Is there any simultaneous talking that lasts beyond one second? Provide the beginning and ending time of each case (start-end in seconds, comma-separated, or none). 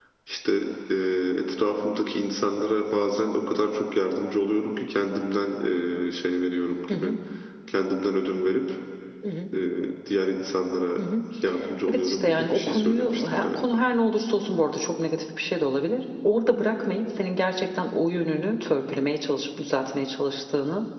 11.9-13.8